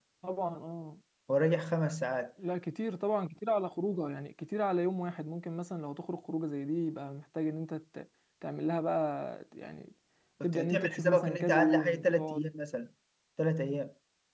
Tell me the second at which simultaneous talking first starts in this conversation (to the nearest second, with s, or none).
10 s